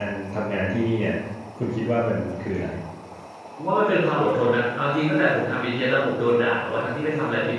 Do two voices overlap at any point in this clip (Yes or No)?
No